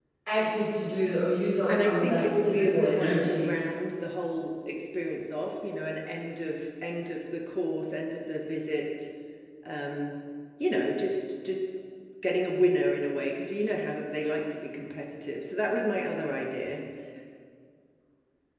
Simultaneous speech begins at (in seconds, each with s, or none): 1.7 s